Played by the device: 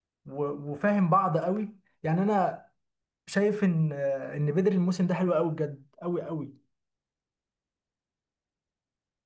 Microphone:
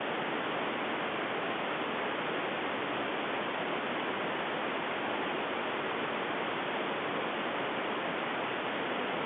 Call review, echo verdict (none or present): none